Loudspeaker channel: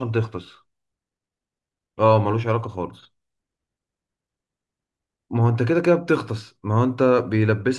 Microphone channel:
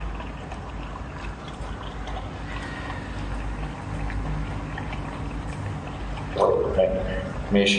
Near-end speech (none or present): present